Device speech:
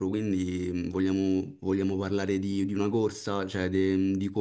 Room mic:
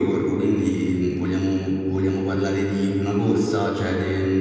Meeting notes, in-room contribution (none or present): none